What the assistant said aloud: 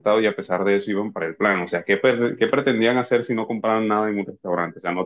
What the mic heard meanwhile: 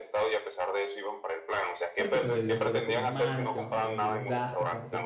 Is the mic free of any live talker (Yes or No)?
No